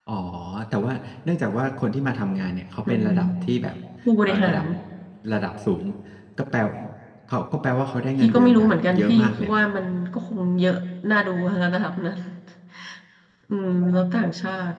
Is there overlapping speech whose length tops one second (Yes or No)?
Yes